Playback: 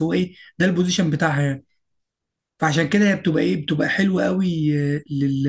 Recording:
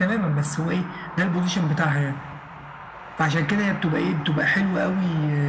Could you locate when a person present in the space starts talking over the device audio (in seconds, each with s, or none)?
none